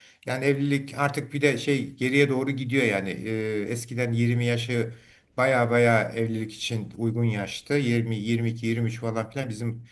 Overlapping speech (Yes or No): No